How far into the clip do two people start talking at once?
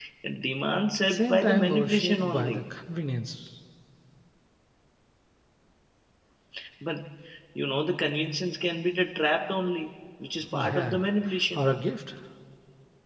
1 s

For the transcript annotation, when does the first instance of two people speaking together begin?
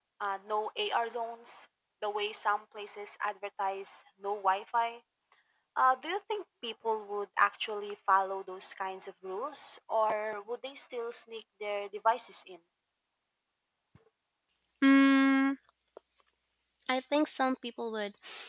none

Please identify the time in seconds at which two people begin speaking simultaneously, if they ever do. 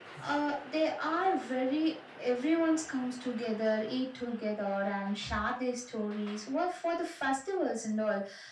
none

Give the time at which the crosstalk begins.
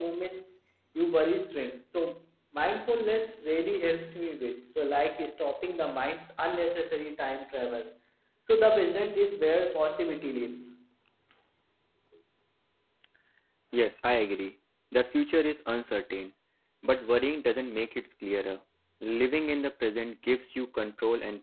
none

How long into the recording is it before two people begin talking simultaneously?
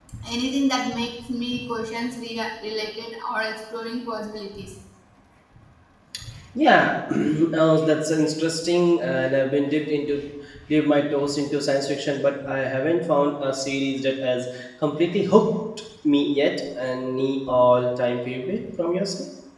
none

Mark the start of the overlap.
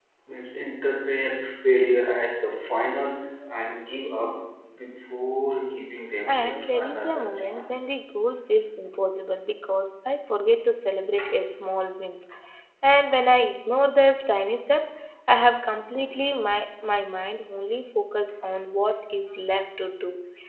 6 s

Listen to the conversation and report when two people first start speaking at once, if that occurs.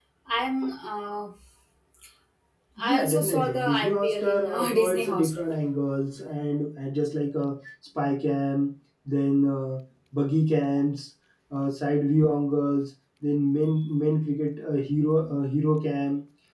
3 s

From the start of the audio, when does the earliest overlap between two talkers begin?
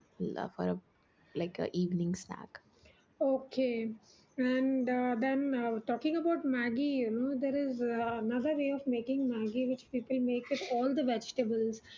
none

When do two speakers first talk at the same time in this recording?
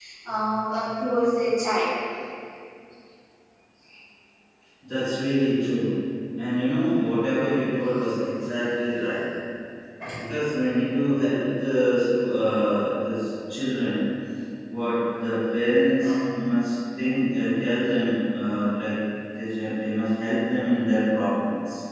none

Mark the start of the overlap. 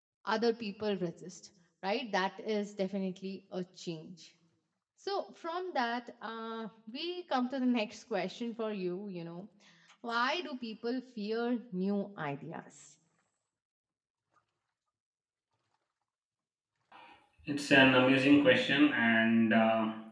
none

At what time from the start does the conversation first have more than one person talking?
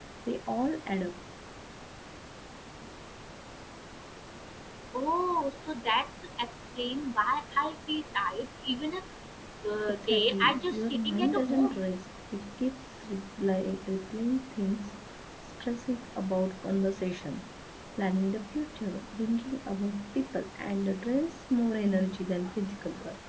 10 s

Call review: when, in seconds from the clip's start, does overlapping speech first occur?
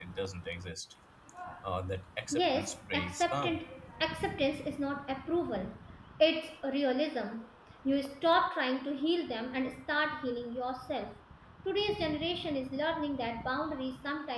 2 s

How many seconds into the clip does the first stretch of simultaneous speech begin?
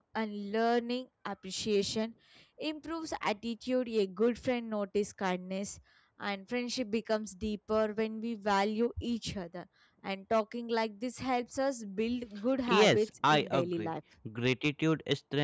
13 s

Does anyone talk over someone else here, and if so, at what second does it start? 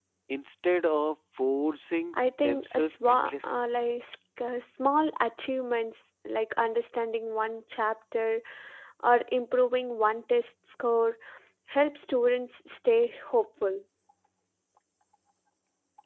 2 s

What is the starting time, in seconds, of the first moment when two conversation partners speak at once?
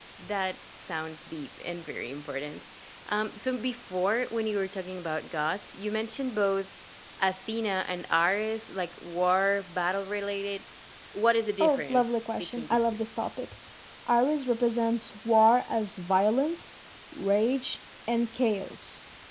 12 s

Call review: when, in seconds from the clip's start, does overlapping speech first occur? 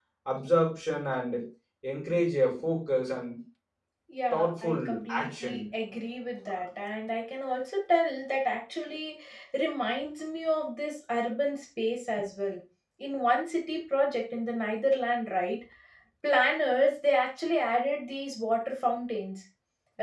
4 s

